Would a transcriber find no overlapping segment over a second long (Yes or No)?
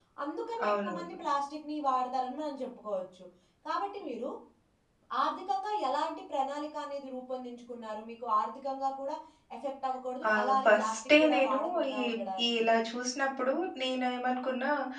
No